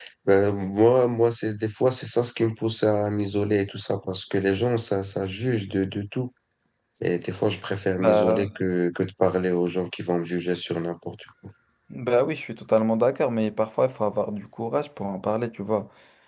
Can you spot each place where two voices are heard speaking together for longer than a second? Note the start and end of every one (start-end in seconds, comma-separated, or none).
none